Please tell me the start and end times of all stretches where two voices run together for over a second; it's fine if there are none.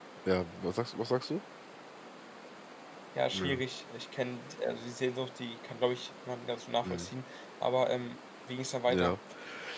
none

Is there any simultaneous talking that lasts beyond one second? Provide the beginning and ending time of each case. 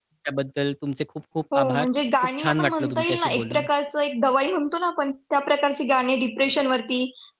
2.4-3.6

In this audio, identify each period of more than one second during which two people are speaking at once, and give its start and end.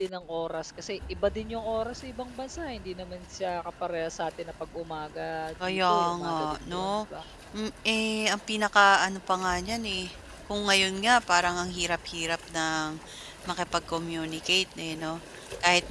5.7-6.9

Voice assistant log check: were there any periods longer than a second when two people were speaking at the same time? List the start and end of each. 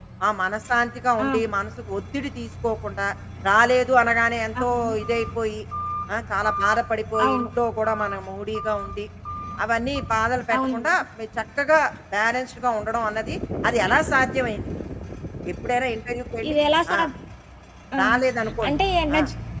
none

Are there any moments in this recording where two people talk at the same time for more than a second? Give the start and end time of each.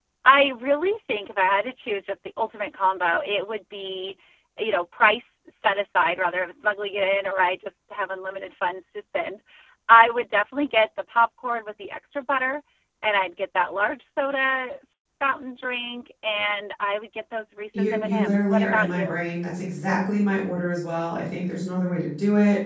17.8-19.1

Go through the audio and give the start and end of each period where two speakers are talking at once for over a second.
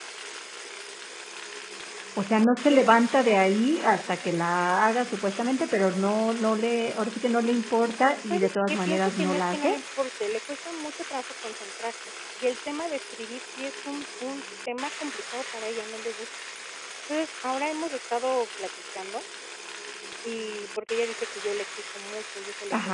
8.3-9.8

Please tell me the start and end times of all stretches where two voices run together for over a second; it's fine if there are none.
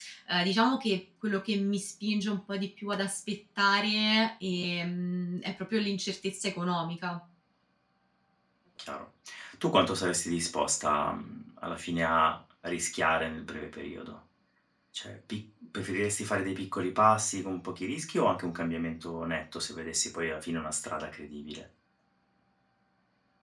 none

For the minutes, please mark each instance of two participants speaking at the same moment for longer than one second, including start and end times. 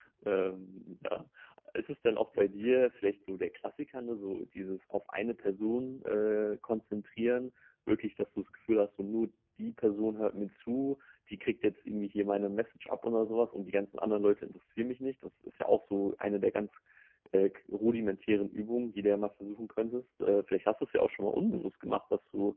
none

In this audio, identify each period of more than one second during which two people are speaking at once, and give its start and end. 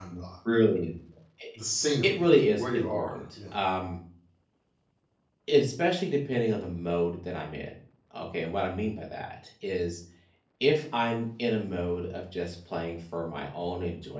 2.1-3.6

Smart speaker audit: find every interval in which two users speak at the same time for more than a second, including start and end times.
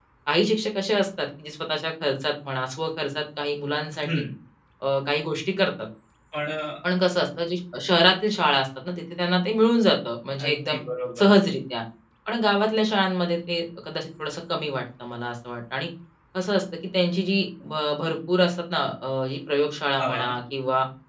none

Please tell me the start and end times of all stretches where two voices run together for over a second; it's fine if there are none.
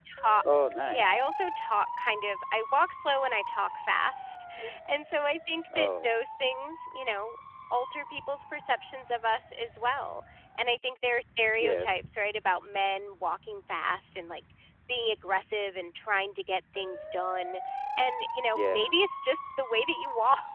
none

